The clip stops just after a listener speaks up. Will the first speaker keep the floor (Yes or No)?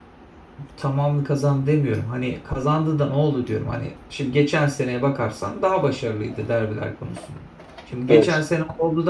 Yes